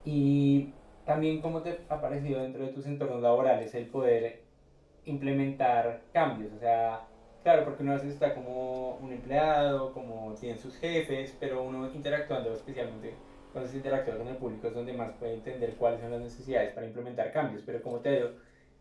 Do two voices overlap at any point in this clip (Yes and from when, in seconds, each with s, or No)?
No